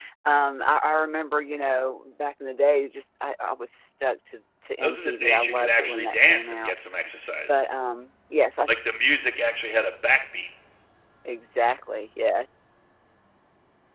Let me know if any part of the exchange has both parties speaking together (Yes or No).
Yes